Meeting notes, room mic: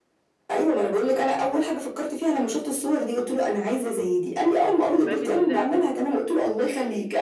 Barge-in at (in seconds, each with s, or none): 5.1 s